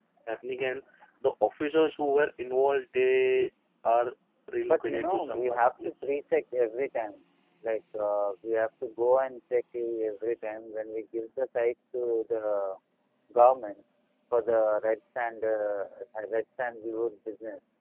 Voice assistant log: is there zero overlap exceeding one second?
No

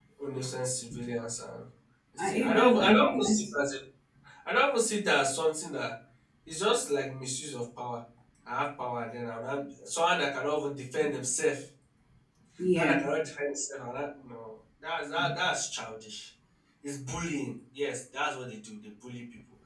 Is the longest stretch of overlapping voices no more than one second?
No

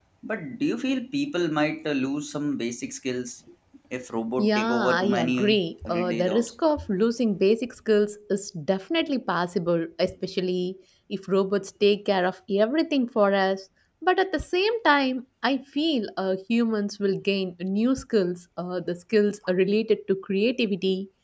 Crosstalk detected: Yes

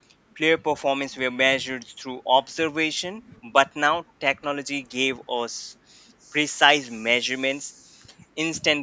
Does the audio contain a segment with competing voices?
No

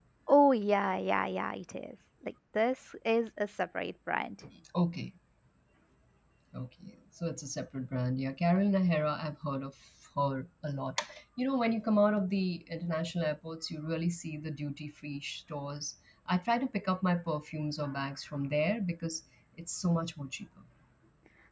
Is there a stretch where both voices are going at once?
No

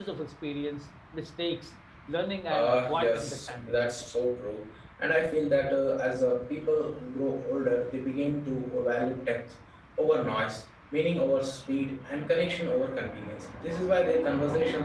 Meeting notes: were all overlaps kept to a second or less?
No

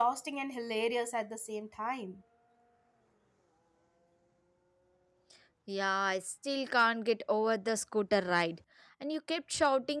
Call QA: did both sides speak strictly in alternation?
Yes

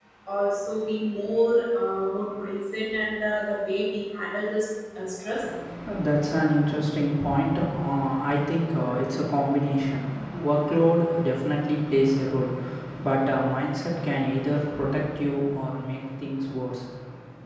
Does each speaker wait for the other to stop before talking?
Yes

